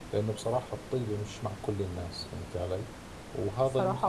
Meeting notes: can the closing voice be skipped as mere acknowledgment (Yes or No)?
Yes